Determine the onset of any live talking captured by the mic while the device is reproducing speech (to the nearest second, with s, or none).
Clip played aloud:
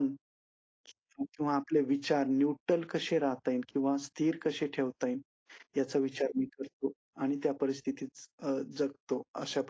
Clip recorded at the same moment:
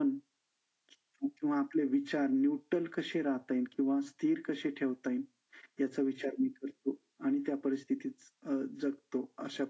none